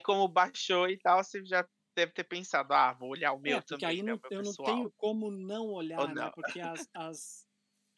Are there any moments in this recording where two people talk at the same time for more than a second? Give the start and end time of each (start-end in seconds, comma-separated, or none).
3.5-4.8